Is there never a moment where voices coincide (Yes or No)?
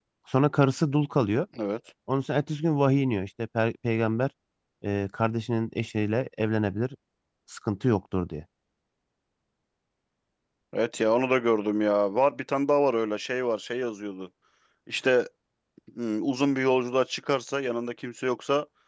Yes